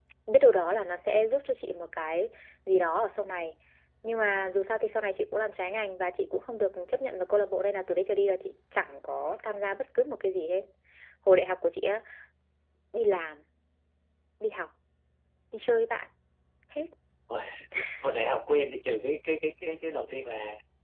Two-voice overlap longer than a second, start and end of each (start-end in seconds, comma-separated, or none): none